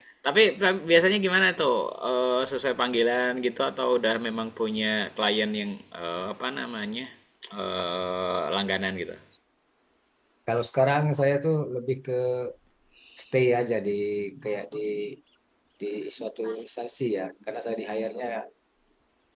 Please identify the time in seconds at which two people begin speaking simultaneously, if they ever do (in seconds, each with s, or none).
none